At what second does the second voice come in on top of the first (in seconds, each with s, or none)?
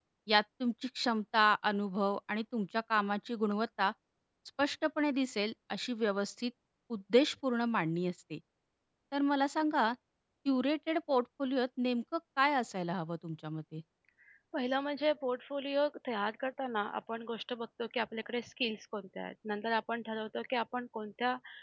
none